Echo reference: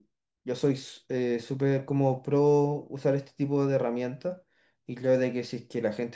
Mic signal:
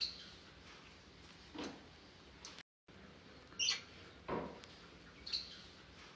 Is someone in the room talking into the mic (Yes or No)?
No